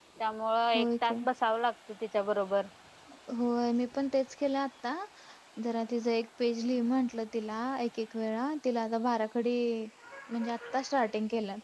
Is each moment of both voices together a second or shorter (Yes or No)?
Yes